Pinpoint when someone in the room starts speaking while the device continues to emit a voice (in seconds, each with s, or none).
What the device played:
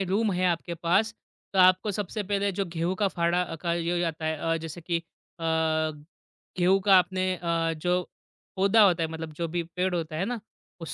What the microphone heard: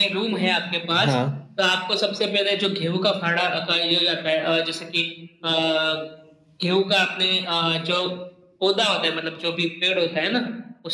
1.0 s